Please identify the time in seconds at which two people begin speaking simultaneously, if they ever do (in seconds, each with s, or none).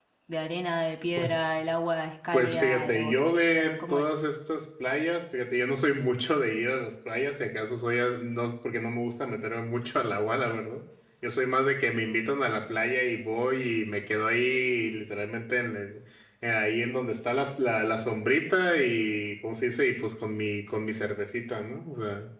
2.3 s